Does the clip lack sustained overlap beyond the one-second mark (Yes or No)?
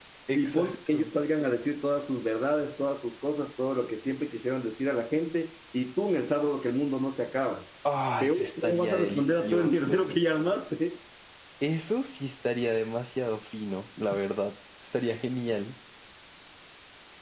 No